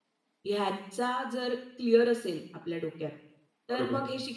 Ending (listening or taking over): listening